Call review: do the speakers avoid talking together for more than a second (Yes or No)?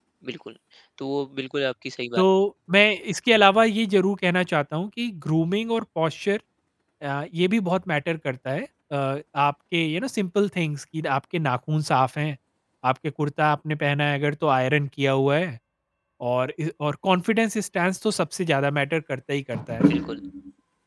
Yes